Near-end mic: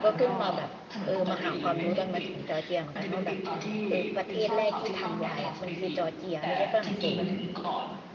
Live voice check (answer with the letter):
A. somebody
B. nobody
A